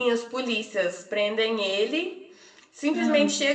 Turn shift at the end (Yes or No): No